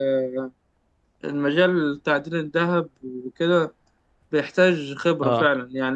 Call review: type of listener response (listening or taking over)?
listening